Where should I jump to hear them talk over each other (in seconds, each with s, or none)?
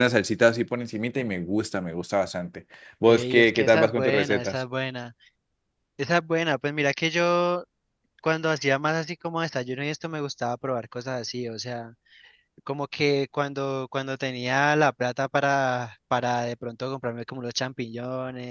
3.1 s